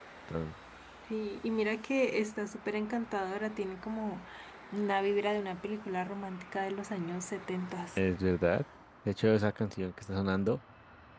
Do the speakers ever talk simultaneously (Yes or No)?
No